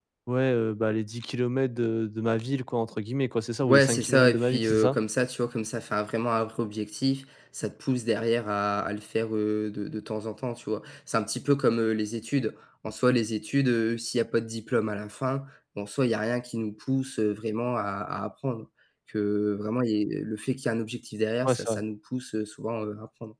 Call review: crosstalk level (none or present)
present